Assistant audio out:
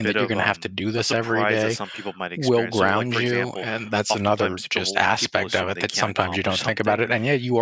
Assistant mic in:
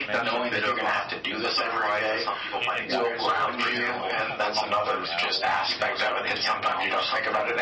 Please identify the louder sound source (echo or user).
echo